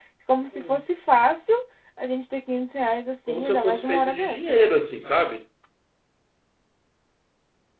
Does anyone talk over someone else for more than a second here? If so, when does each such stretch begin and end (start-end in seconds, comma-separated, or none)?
3.3-4.7